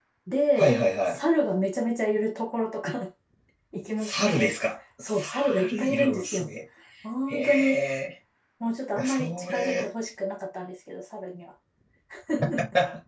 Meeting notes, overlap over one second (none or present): present